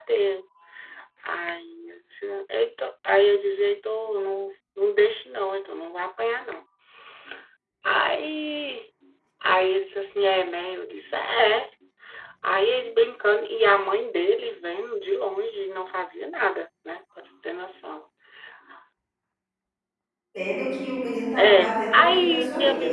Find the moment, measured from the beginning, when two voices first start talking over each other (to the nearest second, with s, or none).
21 s